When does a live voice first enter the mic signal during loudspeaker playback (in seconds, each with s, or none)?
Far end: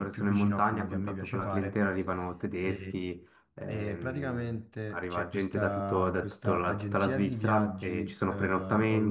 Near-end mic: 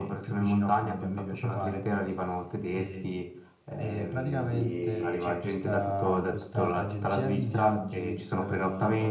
4.4 s